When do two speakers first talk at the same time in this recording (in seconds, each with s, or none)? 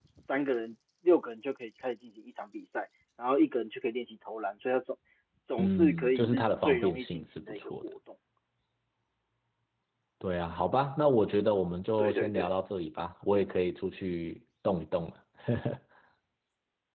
5.6 s